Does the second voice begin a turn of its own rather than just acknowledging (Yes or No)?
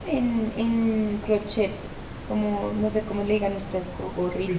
Yes